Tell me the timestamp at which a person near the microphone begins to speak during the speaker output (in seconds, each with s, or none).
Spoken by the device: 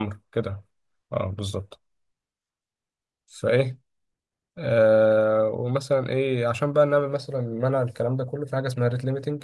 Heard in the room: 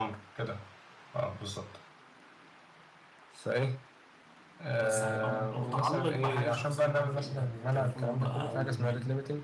4.8 s